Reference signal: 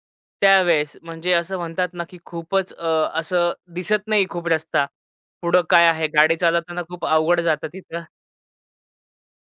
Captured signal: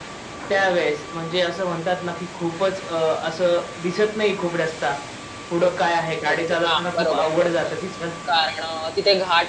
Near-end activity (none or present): present